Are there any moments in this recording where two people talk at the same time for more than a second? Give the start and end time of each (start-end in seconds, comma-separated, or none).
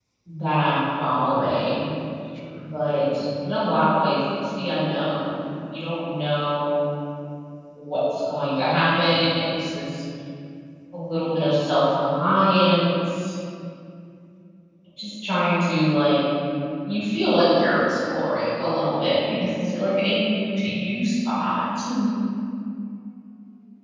none